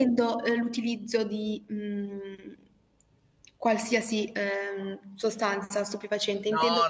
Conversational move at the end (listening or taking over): taking over